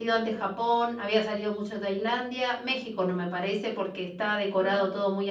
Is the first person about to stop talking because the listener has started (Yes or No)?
No